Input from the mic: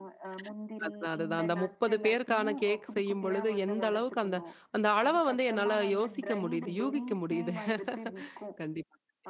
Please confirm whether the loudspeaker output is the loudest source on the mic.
No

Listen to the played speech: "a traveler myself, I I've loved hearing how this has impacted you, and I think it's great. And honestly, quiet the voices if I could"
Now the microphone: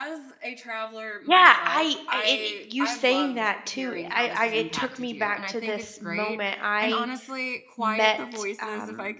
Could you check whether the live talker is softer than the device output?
No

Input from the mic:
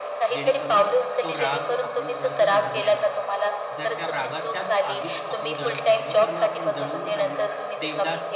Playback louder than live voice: Yes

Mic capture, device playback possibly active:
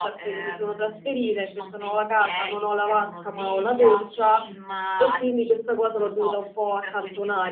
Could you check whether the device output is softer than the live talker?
Yes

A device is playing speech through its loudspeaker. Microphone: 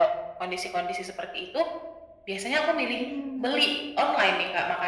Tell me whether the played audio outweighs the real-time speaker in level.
Yes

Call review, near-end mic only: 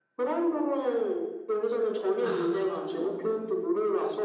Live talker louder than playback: No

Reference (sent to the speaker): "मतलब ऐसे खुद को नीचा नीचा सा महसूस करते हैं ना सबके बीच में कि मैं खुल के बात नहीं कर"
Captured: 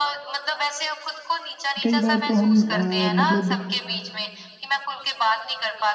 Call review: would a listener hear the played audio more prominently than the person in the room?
No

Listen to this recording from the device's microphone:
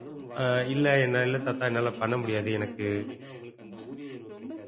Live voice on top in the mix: Yes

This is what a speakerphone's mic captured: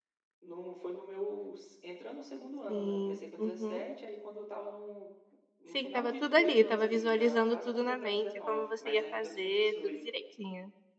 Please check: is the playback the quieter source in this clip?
Yes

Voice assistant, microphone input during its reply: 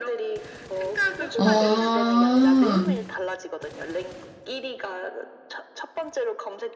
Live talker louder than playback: Yes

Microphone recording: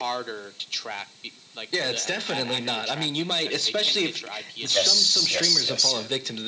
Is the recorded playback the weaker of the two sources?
Yes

